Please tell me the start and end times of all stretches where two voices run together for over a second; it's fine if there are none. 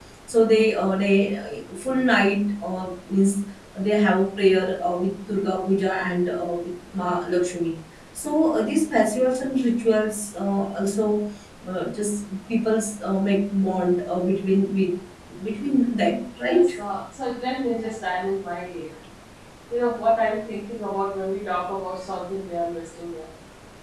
none

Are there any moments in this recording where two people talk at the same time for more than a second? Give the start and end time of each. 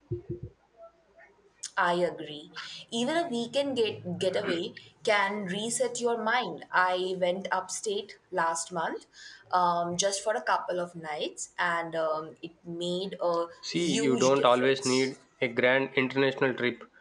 13.8-15.1

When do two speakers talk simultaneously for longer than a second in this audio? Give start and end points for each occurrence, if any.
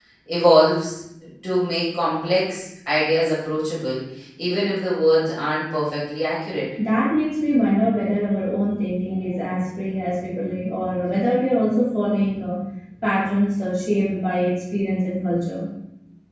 none

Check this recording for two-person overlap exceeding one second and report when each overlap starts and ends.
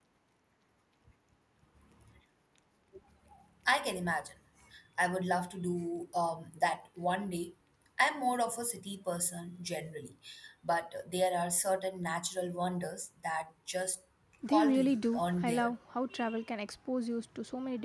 14.5-15.7

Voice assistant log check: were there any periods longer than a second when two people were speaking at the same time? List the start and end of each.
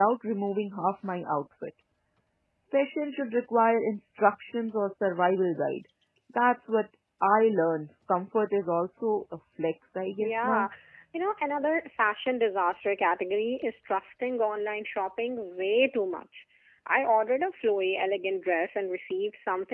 none

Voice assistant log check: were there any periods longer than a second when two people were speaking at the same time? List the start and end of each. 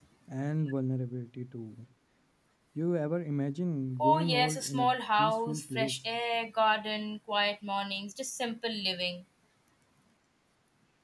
4.0-6.0

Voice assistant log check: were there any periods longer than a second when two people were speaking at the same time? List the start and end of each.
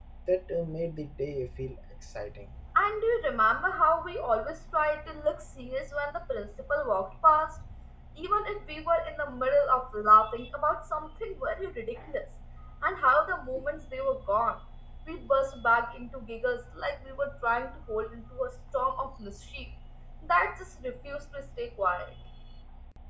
none

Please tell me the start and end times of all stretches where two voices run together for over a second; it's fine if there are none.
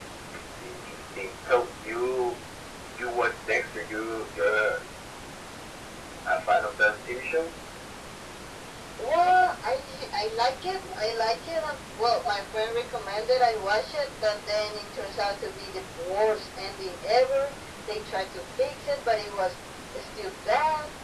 none

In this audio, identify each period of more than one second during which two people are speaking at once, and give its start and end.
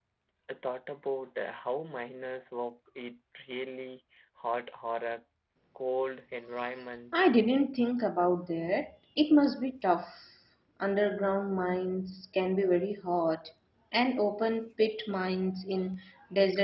none

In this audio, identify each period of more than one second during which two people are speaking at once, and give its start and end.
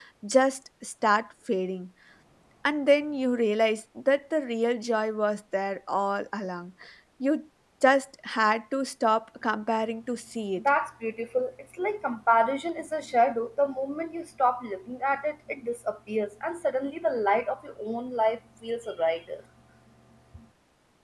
none

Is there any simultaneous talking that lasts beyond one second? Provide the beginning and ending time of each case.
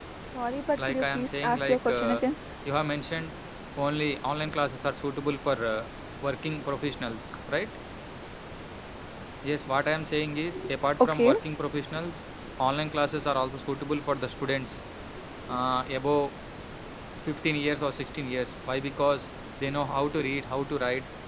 0.7-2.2

